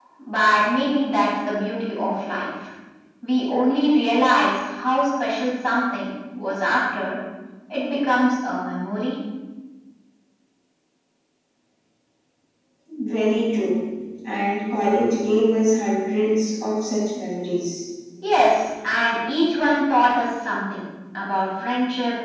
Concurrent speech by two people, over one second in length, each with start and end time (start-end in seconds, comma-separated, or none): none